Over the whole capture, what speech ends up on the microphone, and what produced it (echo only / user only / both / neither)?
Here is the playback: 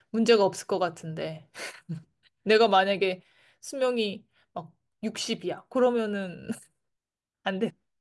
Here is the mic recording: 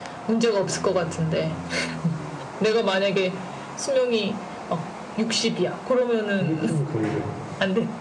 both